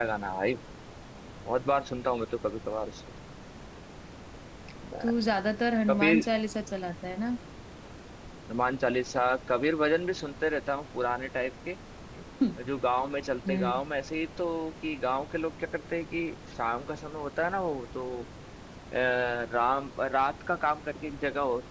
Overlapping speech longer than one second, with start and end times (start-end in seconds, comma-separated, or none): none